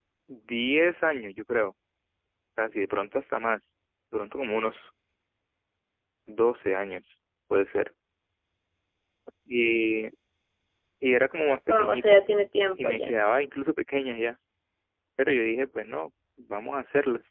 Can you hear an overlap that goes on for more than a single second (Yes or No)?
No